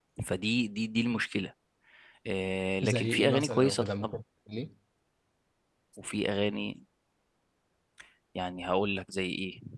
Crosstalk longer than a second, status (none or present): present